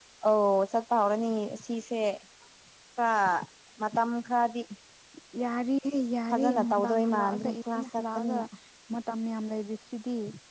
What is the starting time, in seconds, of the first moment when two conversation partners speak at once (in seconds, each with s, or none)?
6.3 s